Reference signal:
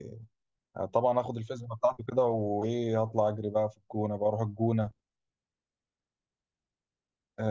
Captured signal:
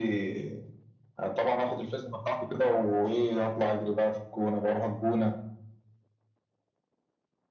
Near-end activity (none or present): none